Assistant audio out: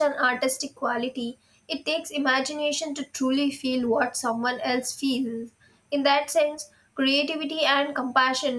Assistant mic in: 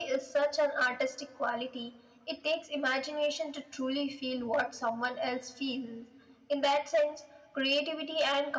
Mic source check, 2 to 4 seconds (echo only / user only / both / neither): echo only